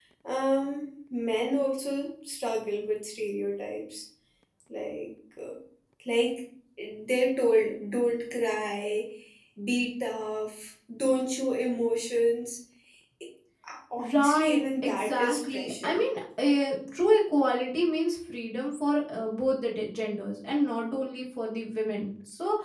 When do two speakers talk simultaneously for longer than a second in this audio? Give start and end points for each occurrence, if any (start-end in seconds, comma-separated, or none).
14.1-16.0